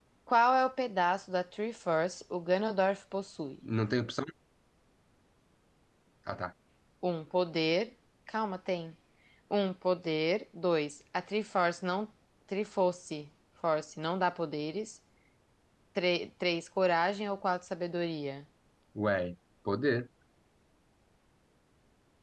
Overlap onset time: none

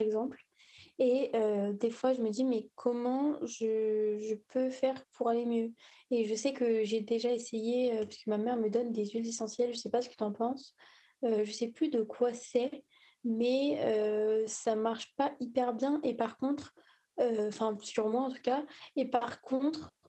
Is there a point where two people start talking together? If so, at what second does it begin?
none

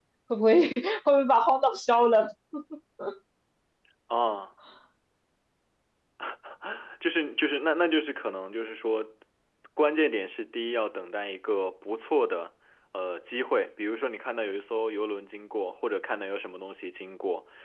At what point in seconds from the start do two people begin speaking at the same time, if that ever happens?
none

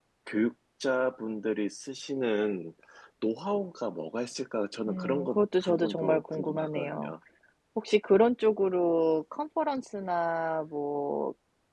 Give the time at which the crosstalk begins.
4.9 s

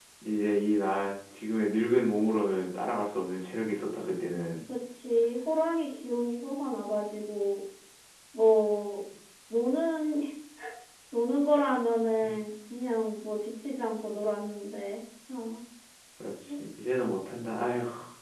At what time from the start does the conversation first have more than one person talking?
none

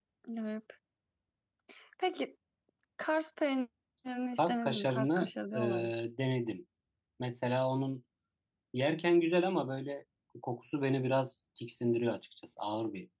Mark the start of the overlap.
4.4 s

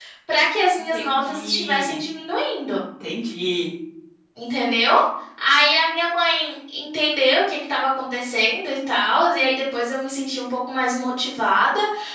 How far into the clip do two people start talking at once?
0.8 s

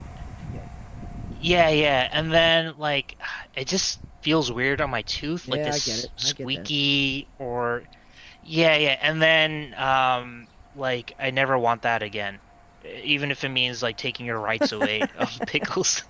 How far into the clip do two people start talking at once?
5.5 s

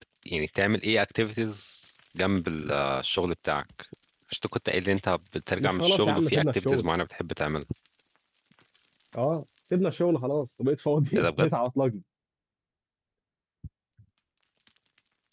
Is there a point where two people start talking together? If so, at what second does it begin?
5.6 s

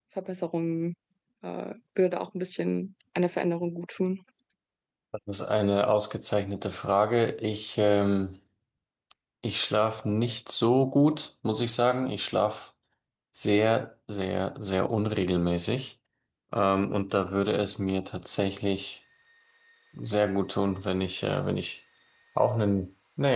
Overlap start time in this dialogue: none

